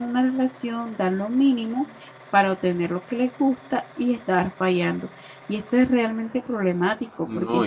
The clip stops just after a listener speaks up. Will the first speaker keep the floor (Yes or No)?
No